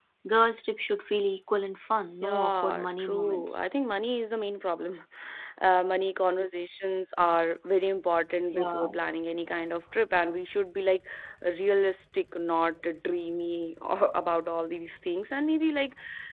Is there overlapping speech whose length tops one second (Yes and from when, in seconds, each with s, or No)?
Yes, from 2.2 s